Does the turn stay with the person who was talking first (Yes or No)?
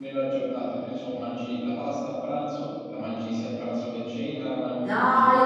No